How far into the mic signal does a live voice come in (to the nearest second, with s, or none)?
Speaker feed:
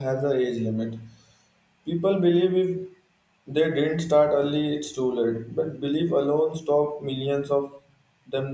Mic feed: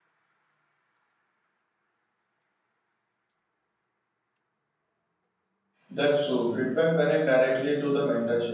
6 s